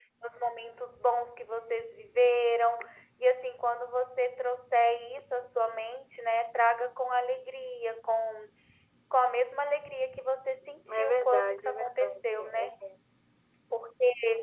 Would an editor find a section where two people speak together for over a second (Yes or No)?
Yes